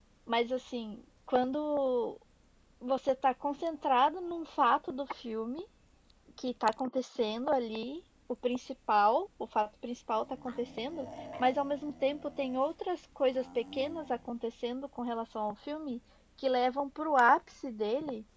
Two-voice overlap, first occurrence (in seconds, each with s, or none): none